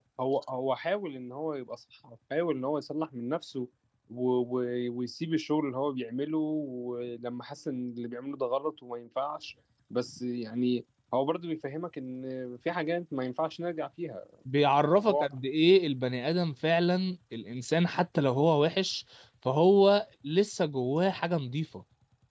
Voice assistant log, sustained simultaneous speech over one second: none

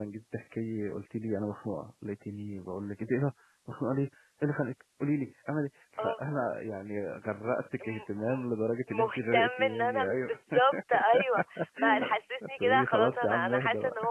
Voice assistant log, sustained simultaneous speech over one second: present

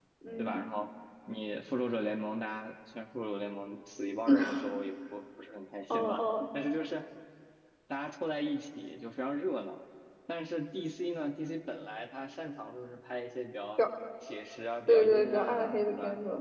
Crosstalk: present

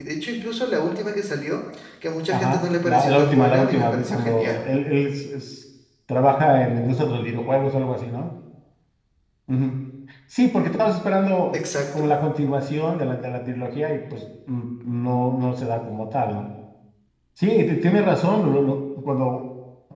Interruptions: present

